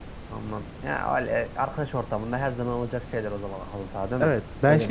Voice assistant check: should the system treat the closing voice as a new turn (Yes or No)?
Yes